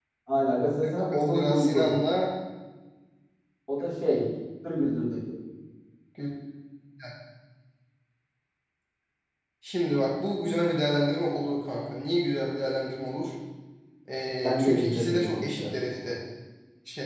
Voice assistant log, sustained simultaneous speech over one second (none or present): present